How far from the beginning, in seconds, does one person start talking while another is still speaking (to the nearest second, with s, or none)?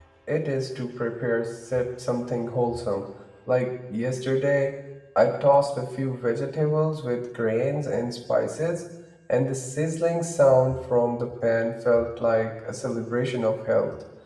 none